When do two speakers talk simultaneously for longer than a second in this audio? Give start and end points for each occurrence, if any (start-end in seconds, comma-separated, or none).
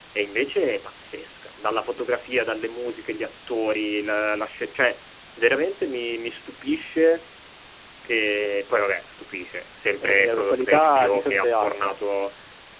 10.0-11.9